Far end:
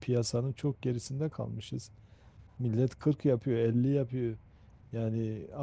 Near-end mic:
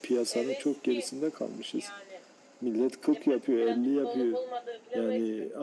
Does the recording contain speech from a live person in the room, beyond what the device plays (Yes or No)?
Yes